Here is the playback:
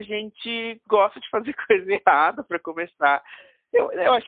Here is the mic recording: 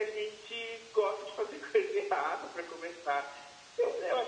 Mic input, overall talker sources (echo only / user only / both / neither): echo only